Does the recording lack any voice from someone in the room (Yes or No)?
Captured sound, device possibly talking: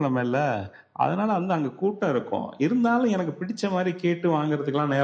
Yes